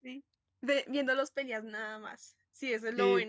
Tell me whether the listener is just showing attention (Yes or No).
No